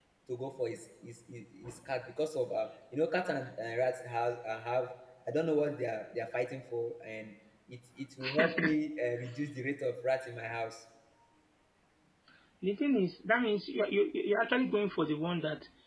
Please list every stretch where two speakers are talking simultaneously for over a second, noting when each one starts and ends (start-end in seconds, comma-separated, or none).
none